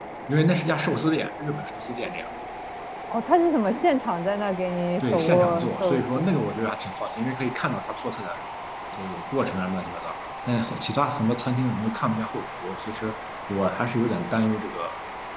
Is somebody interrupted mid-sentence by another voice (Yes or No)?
Yes